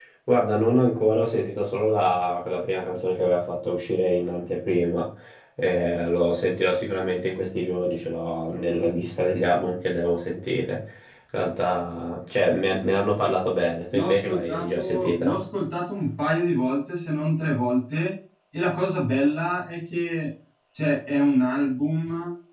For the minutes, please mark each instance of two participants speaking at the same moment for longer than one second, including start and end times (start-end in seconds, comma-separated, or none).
13.9-15.4